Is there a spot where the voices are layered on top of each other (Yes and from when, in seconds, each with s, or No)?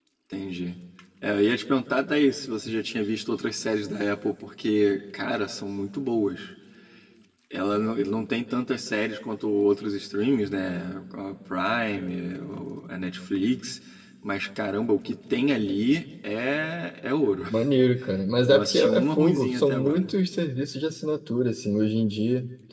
Yes, from 18.4 s